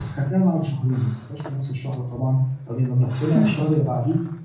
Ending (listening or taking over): listening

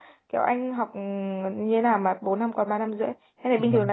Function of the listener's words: taking over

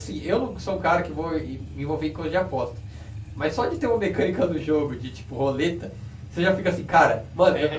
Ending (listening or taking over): taking over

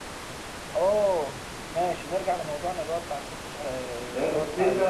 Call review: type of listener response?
taking over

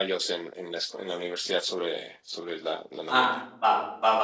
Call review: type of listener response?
taking over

